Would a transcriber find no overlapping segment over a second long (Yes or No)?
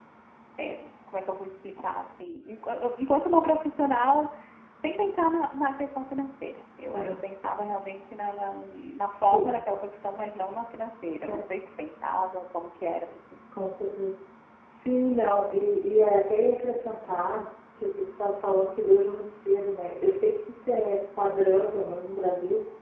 Yes